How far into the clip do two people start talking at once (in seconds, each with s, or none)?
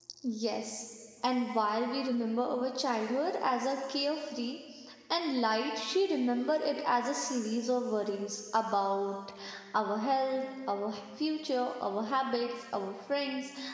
none